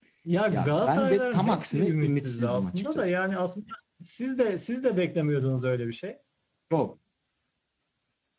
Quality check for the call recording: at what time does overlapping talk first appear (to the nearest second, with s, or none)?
1 s